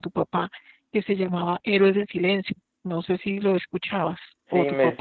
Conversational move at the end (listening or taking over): taking over